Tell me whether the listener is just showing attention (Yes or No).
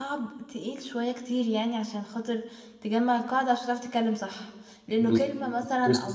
No